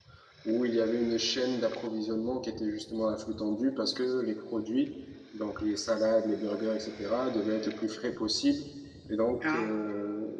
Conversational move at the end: listening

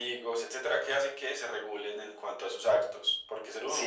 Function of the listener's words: taking over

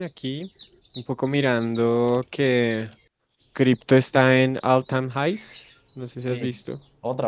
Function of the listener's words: taking over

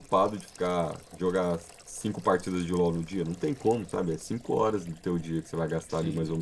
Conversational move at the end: listening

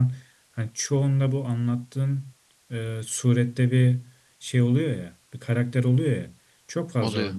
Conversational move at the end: listening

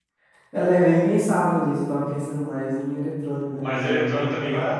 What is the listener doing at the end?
taking over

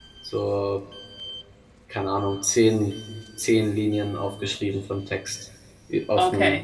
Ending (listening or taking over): taking over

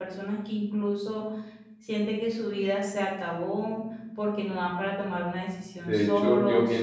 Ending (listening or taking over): taking over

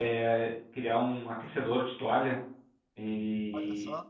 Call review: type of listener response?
listening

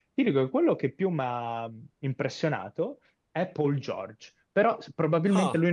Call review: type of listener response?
listening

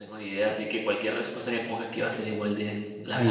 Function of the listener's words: taking over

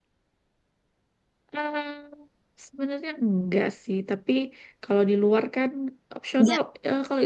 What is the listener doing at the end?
listening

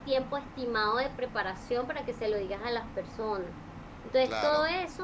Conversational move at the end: listening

